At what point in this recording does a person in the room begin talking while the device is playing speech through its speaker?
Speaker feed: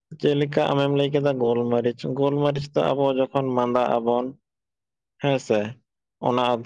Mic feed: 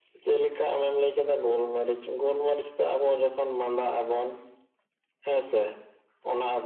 none

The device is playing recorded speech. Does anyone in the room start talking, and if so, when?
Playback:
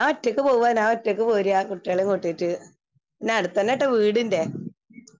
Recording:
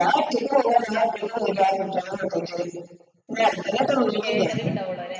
4.2 s

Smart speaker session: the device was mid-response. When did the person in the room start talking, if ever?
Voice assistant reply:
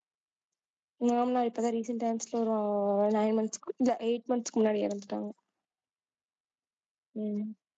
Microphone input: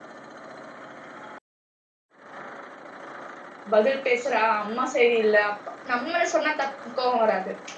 3.7 s

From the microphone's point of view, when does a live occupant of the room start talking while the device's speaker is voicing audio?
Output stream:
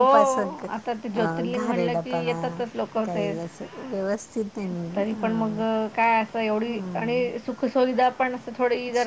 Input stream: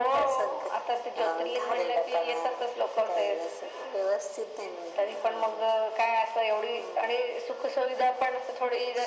none

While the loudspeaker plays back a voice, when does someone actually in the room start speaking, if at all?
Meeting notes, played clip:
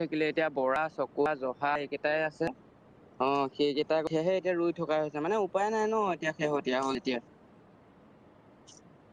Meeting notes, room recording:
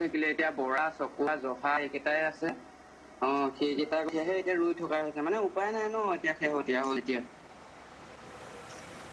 none

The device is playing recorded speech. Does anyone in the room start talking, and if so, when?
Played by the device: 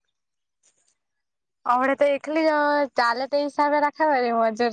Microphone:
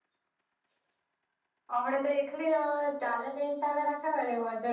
none

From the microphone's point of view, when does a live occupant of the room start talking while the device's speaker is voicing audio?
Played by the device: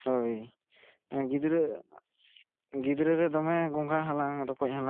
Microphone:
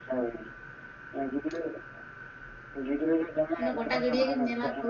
3.5 s

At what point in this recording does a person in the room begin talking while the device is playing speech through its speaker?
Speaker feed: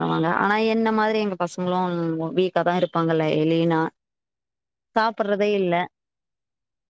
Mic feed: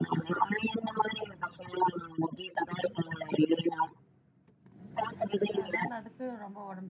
5.6 s

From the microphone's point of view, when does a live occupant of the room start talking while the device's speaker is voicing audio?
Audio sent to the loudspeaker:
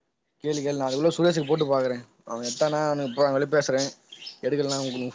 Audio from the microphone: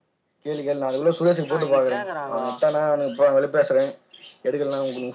1.5 s

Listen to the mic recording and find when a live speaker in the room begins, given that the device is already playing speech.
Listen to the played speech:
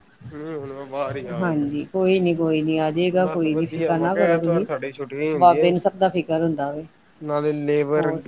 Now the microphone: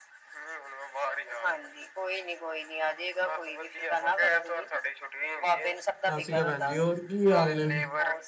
6.1 s

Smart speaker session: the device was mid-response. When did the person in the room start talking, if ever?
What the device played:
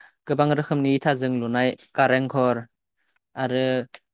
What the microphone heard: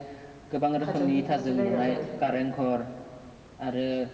0.8 s

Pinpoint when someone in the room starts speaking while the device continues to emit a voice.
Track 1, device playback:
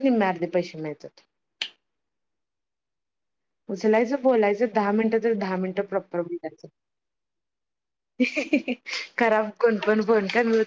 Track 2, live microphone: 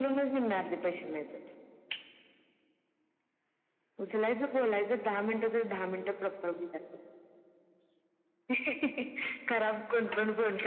none

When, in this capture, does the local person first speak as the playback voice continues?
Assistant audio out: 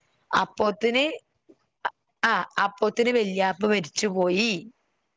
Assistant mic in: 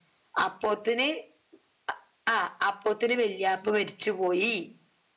none

